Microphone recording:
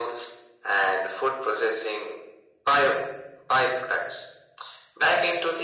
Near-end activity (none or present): none